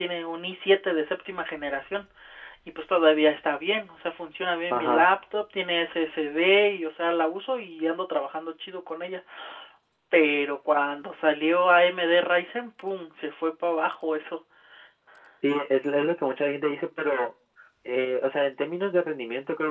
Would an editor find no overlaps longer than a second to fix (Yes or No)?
Yes